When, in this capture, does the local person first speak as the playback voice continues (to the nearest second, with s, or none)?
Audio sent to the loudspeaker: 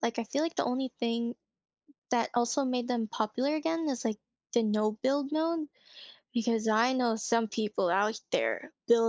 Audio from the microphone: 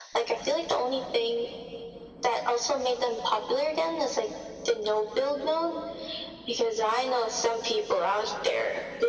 none